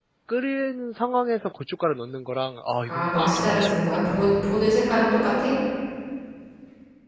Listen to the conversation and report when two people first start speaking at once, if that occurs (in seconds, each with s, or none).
2.8 s